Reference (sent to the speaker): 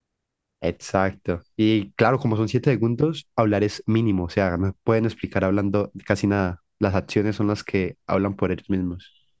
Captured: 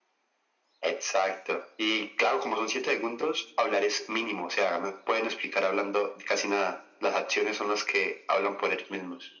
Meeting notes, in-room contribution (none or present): none